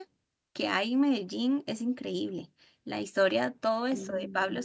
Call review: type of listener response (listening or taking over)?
listening